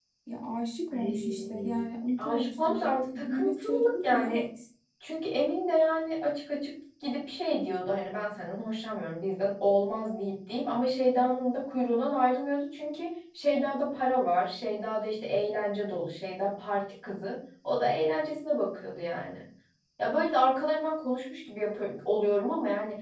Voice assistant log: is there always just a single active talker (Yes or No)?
No